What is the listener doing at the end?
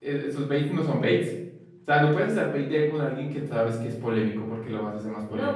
taking over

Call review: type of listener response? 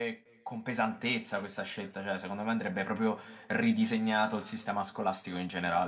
taking over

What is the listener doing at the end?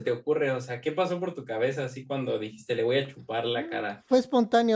taking over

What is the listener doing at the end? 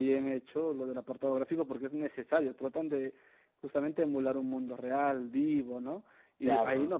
listening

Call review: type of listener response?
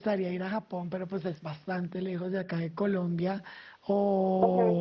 listening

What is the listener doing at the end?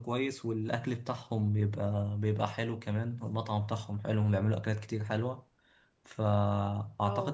listening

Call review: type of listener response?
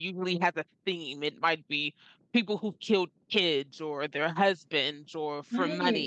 listening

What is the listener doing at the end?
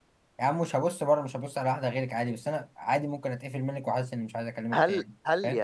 taking over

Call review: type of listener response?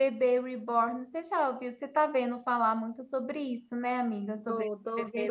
taking over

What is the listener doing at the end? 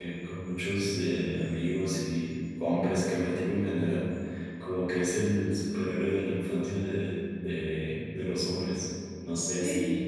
taking over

